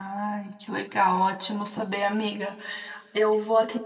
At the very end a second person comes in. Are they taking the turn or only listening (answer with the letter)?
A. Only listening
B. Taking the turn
A